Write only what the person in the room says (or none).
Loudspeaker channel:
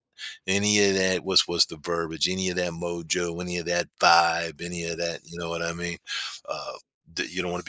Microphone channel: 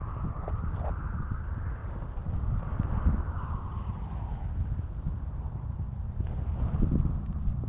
none